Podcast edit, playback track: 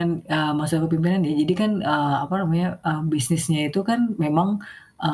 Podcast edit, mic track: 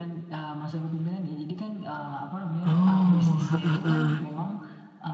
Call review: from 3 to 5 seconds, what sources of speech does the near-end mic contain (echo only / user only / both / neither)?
both